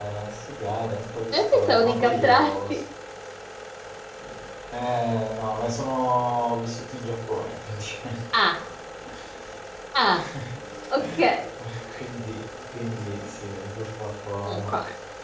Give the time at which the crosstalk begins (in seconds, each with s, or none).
1.3 s